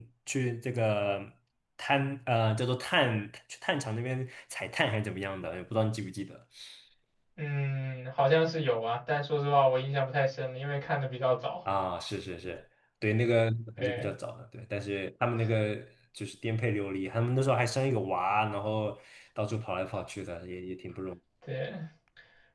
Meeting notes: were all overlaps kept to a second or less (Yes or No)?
Yes